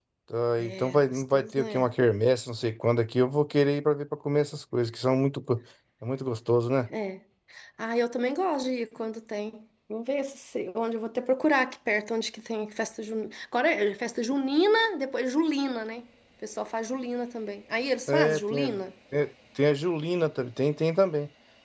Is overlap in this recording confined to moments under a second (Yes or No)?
No